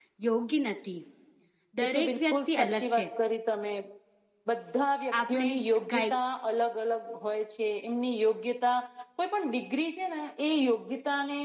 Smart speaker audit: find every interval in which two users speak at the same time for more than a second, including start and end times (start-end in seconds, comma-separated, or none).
1.8-3.0